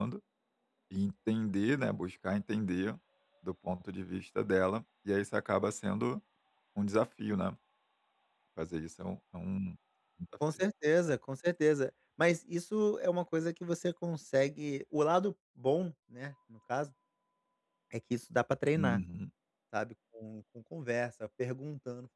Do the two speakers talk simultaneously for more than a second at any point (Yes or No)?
No